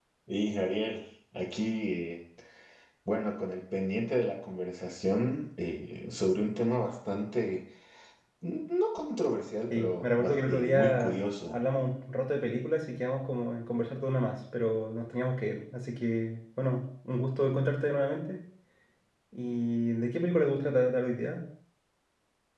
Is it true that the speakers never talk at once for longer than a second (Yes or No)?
No